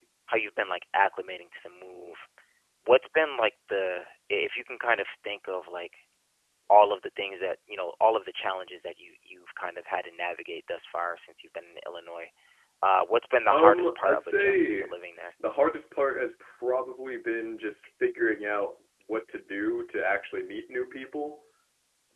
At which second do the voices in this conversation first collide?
13.4 s

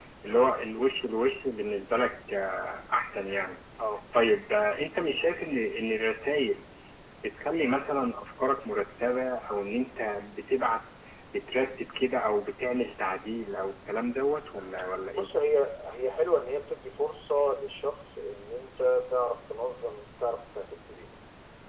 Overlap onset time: none

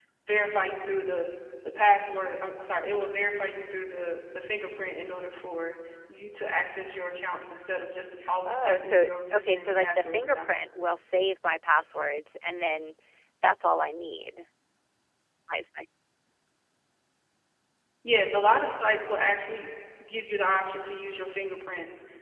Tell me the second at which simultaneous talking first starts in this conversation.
8.4 s

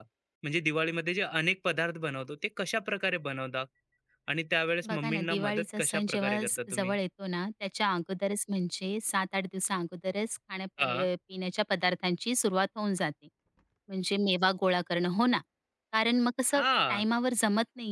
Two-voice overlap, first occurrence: 4.9 s

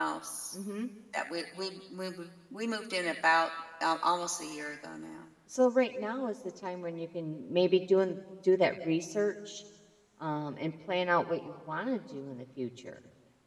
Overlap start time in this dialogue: none

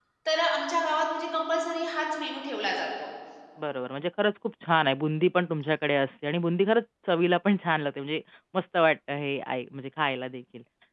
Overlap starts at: none

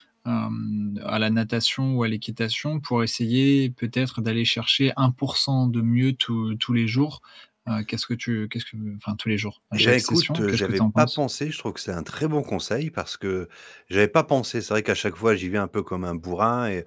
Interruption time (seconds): 9.7 s

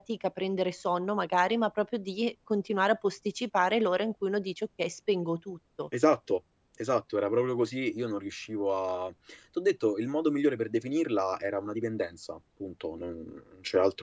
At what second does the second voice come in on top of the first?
none

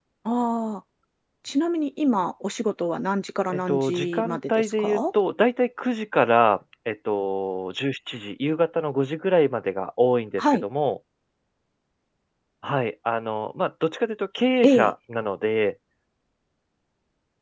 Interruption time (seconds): 3.5 s

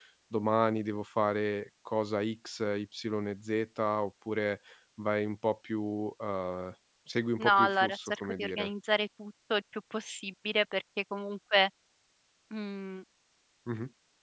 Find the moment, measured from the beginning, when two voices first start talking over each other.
7.4 s

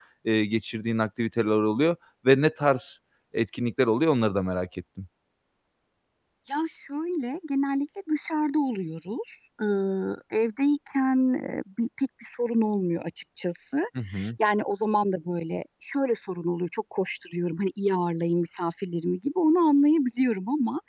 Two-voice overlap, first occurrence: none

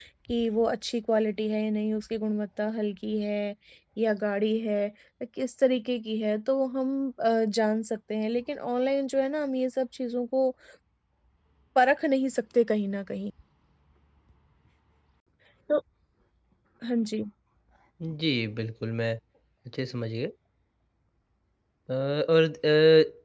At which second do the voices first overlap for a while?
none

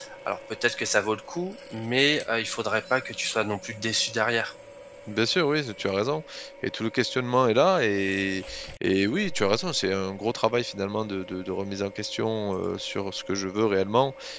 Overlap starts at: none

